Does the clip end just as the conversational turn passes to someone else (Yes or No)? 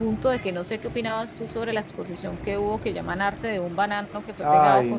Yes